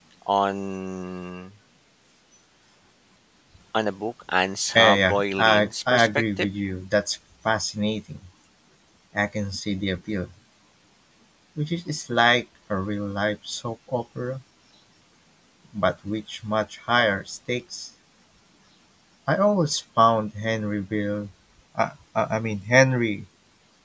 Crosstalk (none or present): present